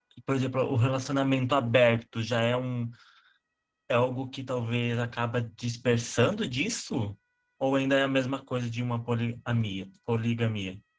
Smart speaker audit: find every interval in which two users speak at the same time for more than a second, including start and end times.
none

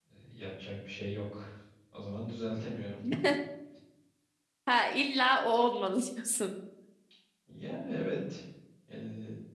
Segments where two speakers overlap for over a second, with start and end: none

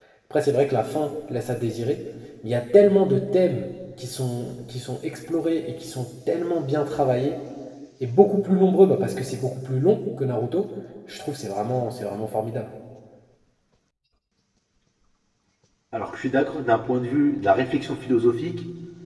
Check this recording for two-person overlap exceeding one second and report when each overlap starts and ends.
none

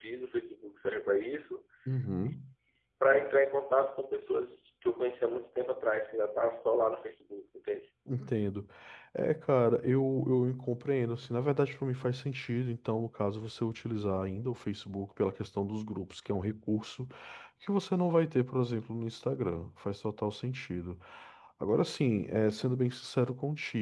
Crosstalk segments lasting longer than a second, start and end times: none

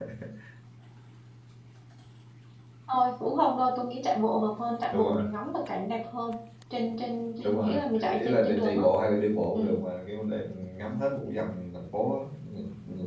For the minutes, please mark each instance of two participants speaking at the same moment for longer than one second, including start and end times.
7.4-8.8

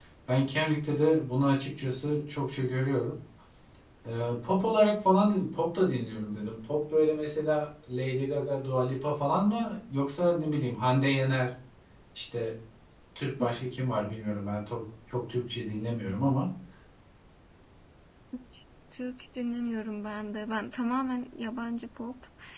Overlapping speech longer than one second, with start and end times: none

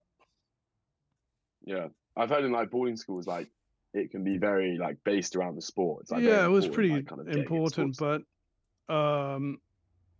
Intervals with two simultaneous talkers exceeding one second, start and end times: 6.1-8.0

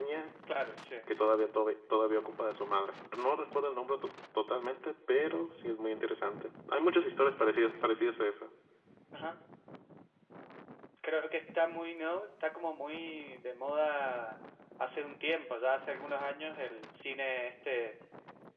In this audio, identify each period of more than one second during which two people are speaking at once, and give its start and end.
none

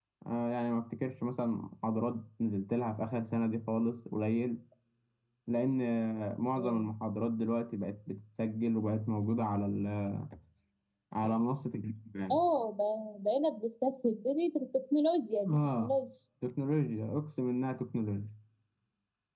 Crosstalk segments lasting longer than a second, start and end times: none

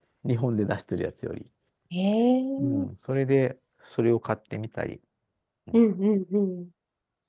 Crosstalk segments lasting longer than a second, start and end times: none

